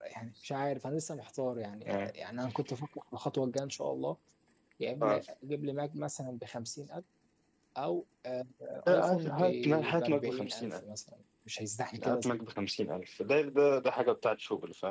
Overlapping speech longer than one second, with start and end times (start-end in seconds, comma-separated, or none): 8.9-10.8